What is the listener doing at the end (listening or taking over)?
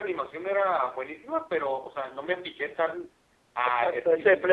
taking over